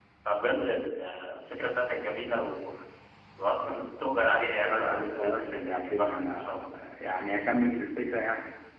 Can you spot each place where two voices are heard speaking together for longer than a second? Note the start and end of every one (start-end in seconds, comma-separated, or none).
4.5-6.6